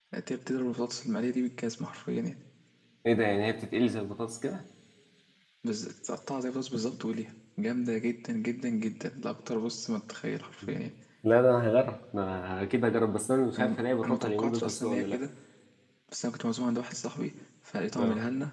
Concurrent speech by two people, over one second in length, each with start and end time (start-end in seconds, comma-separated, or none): 13.6-15.2